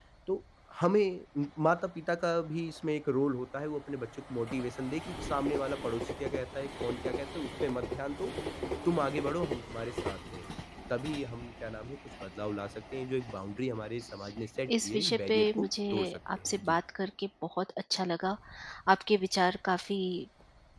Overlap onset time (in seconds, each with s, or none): 14.7 s